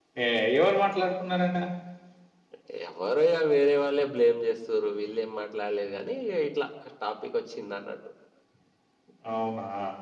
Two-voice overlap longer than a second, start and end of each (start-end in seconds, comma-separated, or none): none